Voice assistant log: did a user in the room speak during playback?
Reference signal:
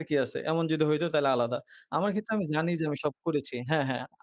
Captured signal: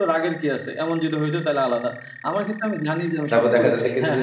Yes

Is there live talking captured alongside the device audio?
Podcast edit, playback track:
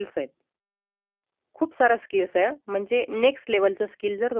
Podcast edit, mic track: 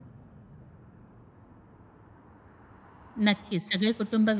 Yes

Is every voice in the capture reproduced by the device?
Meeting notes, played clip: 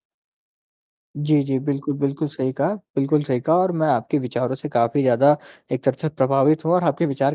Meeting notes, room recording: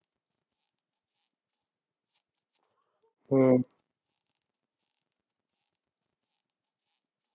No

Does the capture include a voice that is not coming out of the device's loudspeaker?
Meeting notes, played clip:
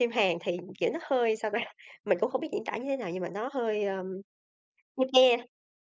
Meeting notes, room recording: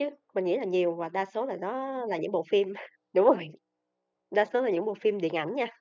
Yes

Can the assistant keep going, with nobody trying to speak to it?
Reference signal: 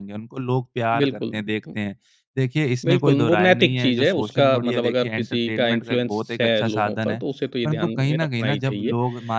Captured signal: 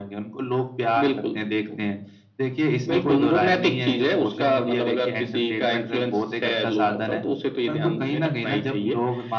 Yes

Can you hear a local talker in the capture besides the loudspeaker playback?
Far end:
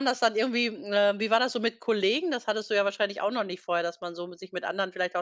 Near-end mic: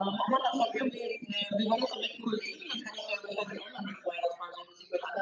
No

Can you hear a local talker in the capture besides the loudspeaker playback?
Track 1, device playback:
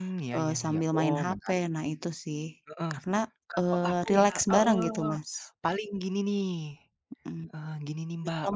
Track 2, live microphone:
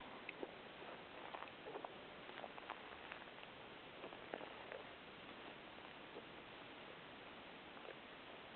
No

